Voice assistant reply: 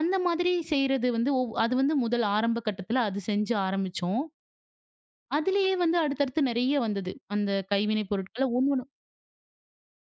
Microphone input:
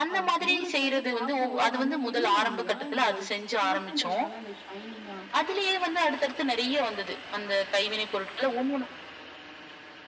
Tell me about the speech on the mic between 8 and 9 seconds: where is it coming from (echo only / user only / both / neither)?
echo only